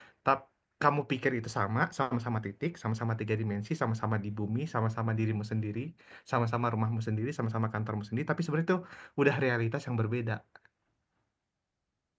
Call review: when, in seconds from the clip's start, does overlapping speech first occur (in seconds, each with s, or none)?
none